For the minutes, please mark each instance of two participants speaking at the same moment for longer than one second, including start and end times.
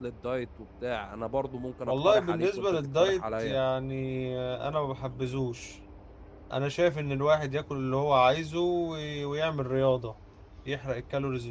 1.9-3.6

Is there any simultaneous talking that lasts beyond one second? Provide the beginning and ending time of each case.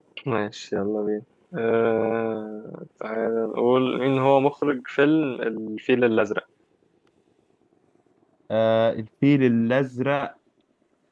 none

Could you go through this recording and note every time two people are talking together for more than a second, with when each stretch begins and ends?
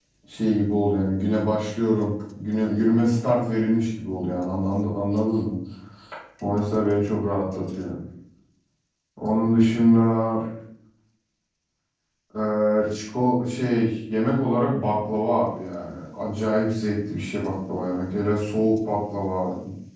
none

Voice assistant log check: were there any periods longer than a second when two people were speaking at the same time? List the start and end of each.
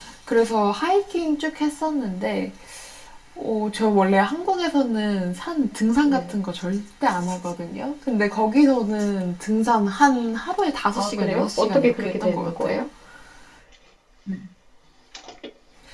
10.9-12.8

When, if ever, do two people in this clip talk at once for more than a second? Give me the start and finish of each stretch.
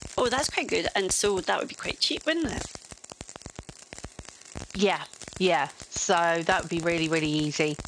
none

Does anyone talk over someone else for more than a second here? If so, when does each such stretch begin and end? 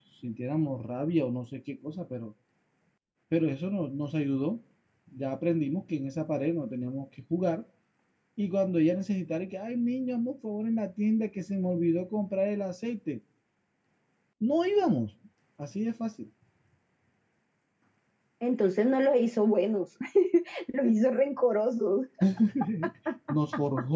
none

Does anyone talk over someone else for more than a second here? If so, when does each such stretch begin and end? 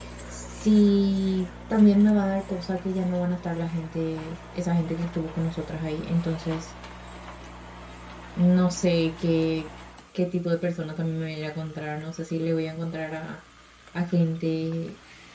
none

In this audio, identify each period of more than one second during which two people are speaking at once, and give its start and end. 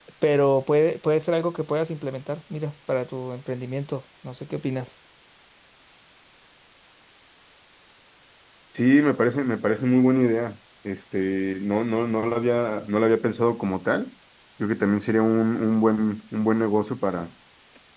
none

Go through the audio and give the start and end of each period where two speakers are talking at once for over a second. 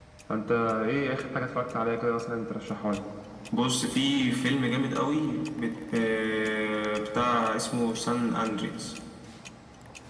none

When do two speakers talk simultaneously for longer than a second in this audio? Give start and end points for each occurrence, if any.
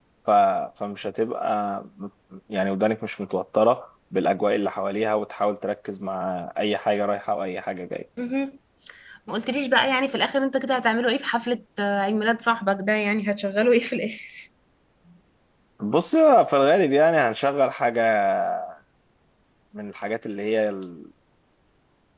none

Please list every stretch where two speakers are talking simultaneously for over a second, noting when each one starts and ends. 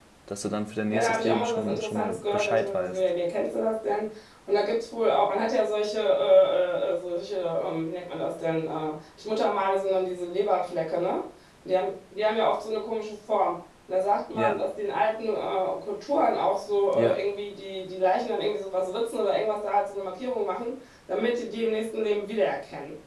0.9-3.0

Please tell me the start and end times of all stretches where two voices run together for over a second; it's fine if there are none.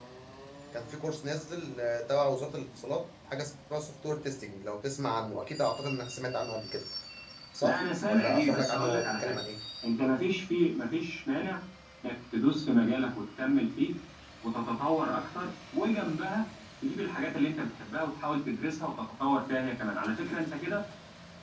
7.6-9.4

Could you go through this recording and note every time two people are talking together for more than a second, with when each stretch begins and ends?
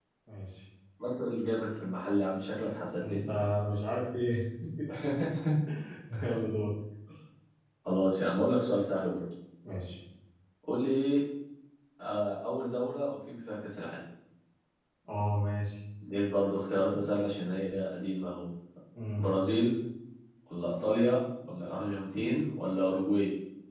none

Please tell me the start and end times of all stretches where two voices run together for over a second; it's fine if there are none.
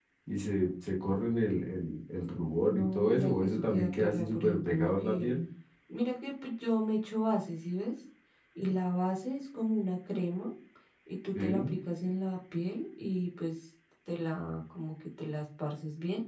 2.6-5.3

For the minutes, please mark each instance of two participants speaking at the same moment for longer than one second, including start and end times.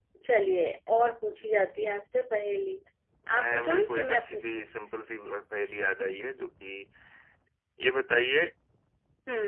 3.4-4.7

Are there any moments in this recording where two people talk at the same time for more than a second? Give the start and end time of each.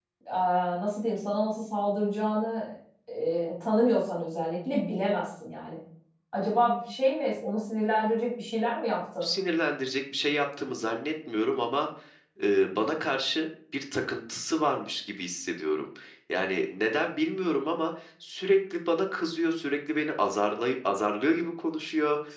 none

